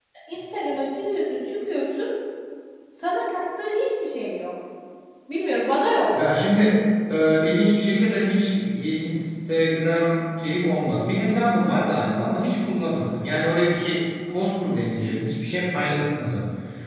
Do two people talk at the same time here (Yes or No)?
No